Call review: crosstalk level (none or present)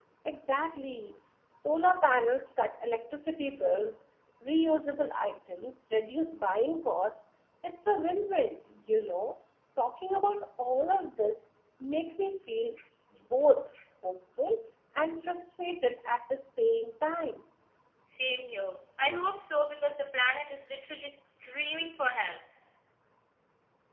none